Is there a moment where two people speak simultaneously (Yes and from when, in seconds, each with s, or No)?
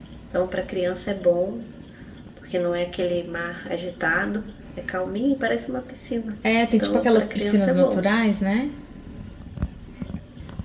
Yes, from 6.4 s